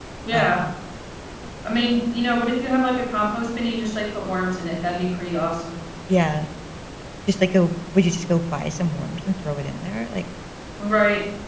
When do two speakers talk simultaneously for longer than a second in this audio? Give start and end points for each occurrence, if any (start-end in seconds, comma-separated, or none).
none